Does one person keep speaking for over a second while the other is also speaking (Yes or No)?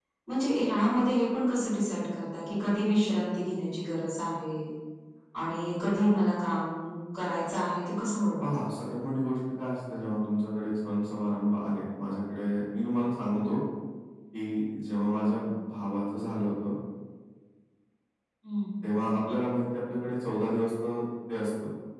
No